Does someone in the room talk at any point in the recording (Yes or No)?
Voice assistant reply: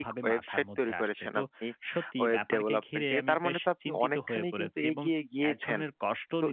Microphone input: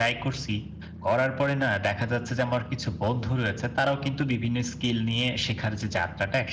Yes